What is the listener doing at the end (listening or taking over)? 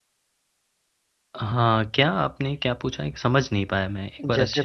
taking over